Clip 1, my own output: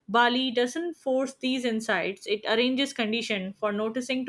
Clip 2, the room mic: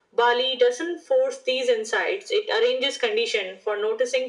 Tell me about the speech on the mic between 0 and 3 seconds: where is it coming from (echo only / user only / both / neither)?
echo only